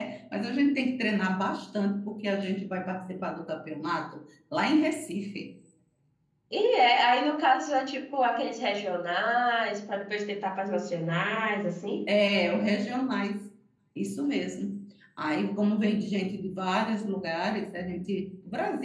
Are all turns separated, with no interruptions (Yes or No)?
Yes